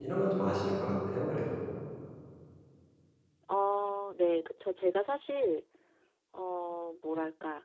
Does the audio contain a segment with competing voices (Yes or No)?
No